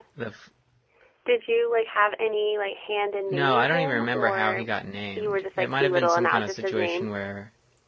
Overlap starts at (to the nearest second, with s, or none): 3 s